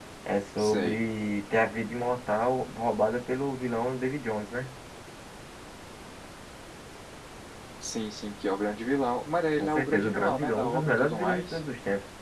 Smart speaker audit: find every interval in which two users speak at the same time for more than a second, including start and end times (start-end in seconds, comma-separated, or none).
9.6-11.6